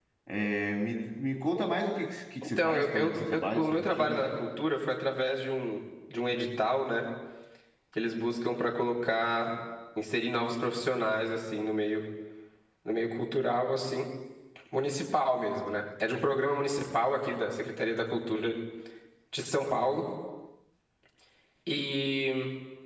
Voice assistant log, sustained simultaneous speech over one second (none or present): present